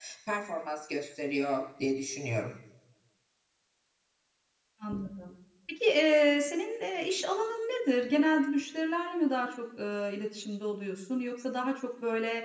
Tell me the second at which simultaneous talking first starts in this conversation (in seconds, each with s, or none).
none